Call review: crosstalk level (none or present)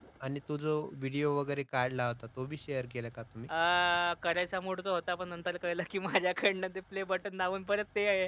none